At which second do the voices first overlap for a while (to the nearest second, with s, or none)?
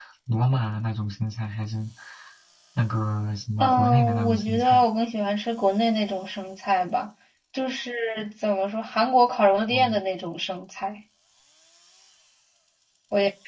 4 s